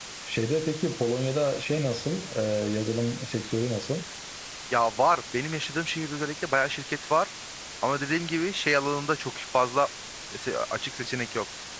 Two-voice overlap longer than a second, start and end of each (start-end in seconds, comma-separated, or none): none